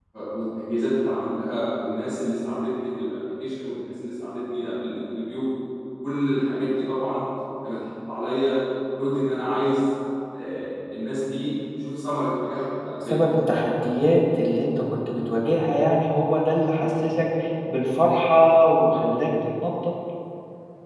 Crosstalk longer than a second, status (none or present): none